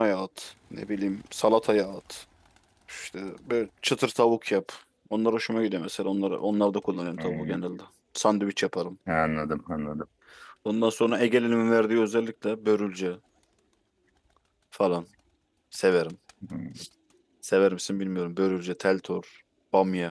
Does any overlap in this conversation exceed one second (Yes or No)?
No